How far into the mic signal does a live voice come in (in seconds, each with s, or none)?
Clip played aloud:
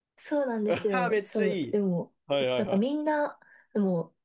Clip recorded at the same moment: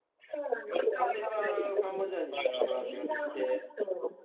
1.0 s